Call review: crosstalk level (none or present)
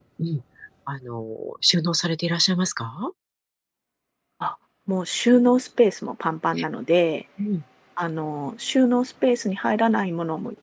none